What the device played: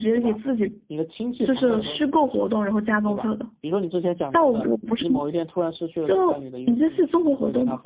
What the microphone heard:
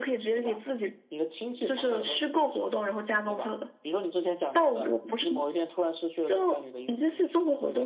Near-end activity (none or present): none